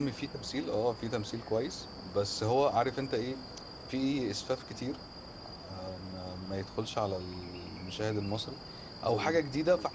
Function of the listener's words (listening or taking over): listening